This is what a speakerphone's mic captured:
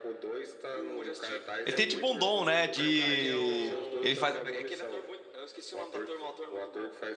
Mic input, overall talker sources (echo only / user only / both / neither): both